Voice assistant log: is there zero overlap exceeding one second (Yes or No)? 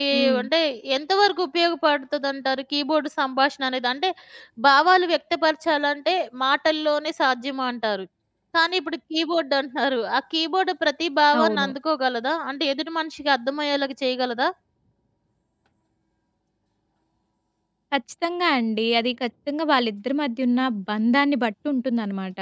Yes